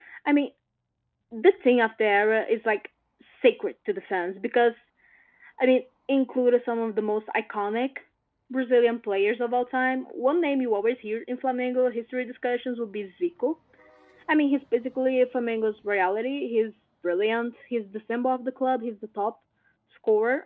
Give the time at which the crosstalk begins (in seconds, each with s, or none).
none